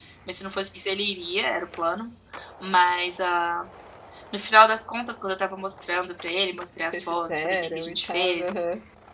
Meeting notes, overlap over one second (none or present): present